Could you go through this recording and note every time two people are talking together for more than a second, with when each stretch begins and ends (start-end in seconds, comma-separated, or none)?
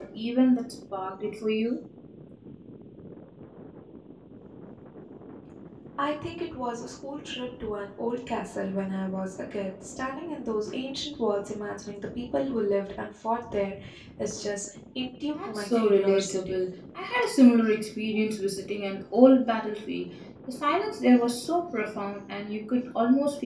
15.3-16.6